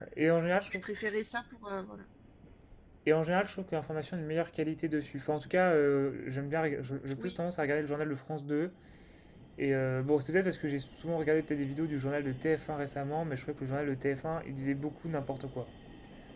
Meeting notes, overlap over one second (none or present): none